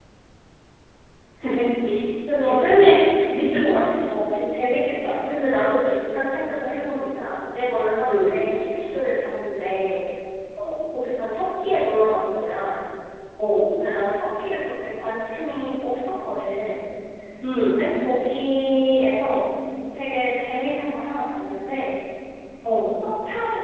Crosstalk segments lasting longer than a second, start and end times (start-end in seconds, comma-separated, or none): none